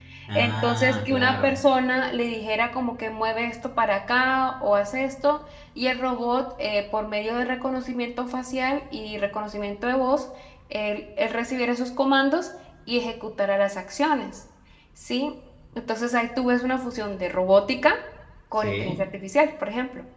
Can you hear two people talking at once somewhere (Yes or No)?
Yes